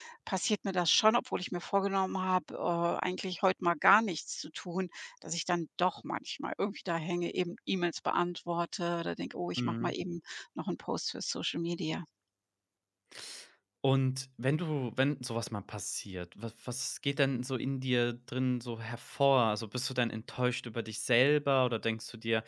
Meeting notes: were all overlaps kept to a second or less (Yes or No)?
Yes